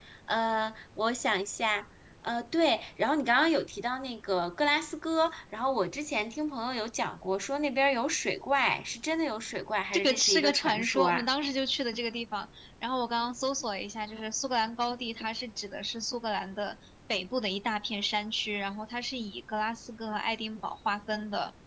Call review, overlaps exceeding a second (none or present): present